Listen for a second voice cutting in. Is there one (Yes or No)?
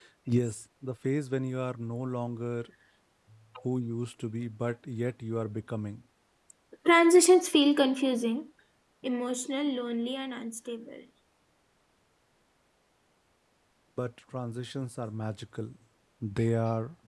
No